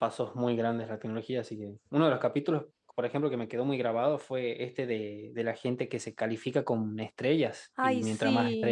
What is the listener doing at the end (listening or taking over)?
listening